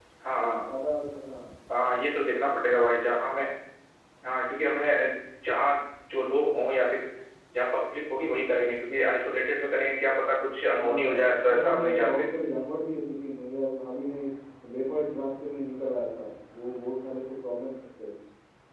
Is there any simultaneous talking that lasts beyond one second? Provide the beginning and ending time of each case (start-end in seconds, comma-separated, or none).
10.8-12.2